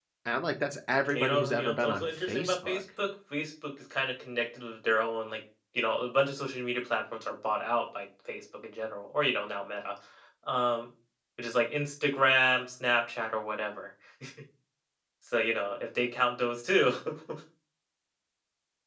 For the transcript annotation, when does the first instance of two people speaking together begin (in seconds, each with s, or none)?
1.1 s